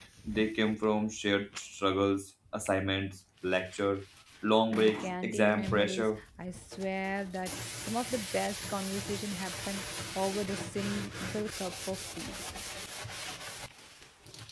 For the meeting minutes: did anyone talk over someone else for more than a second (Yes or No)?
Yes